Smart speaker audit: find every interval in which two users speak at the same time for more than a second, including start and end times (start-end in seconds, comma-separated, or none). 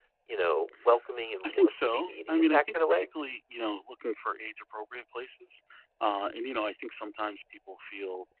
1.4-3.1